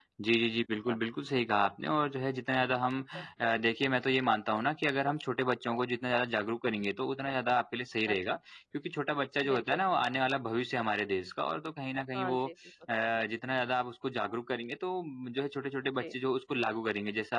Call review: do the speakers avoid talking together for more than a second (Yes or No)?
Yes